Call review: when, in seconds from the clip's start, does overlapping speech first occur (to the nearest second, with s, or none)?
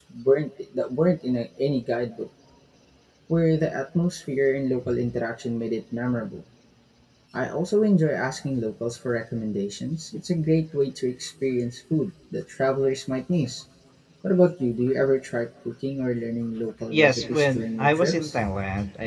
17 s